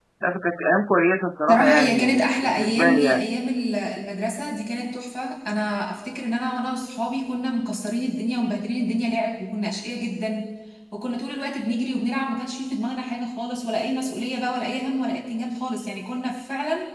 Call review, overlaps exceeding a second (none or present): present